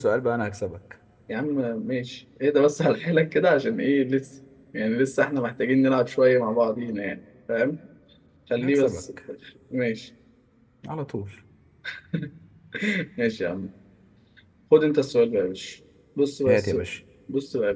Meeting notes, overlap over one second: none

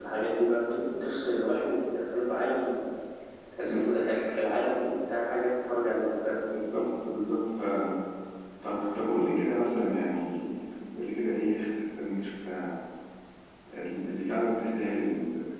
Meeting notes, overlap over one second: none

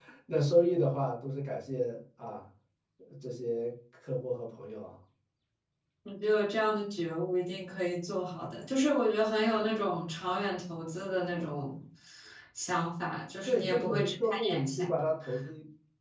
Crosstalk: present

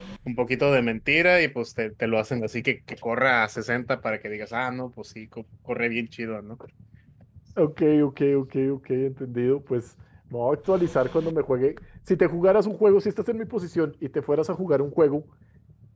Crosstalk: none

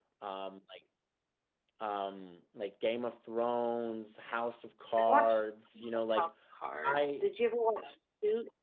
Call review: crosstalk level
present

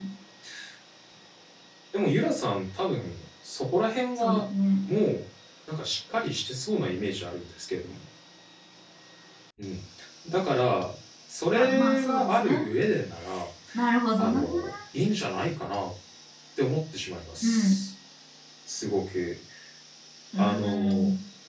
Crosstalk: present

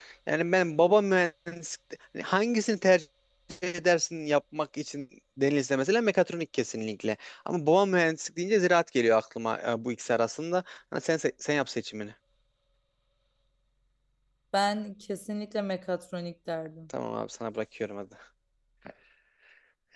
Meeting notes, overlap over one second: none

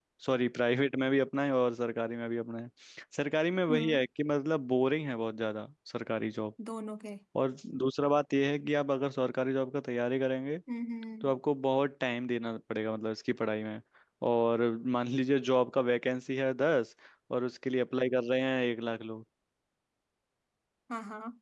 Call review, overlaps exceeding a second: none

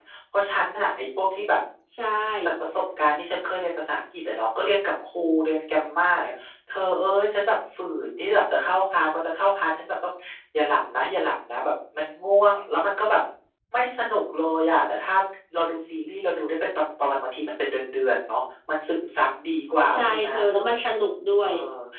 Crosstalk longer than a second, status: none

